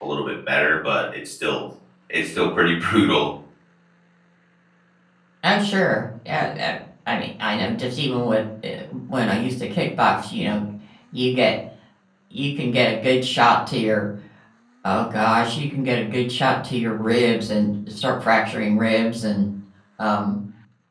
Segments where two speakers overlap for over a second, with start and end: none

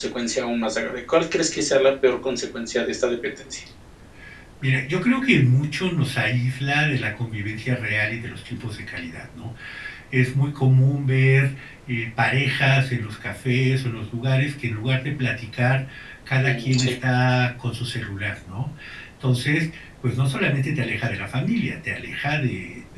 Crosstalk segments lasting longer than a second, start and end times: none

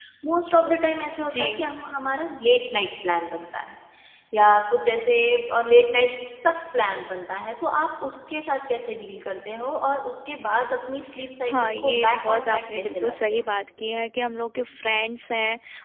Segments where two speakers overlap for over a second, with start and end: 11.5-13.4

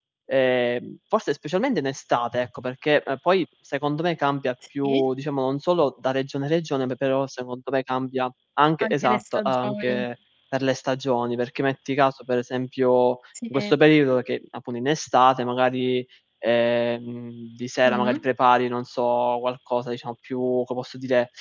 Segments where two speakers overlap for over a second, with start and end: 8.8-10.0

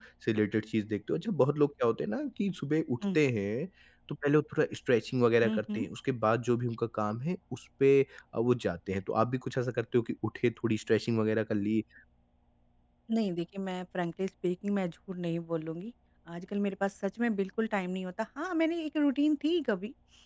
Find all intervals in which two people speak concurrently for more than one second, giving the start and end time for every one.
none

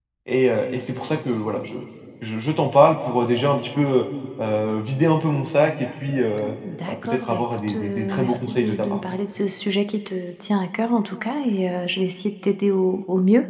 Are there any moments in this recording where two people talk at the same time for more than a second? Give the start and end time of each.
6.9-9.0

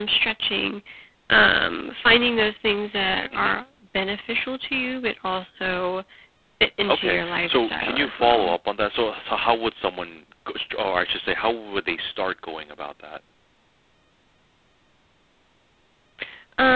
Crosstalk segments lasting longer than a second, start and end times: 6.9-8.6

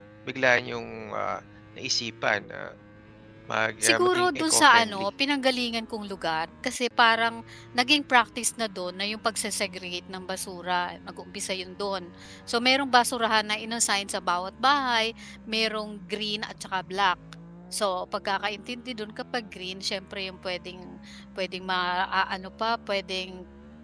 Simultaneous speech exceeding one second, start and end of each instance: 3.8-5.1

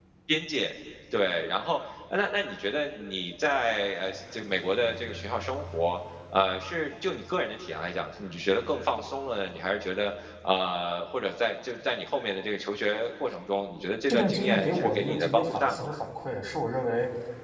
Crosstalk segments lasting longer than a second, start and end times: 14.1-15.9

